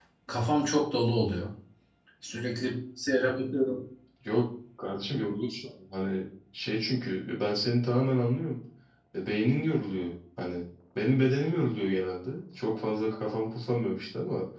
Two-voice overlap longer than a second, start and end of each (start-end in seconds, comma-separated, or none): none